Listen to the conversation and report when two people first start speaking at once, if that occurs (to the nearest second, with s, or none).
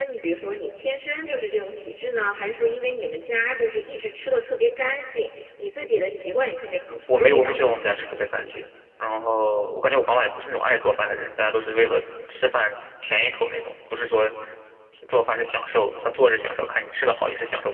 7 s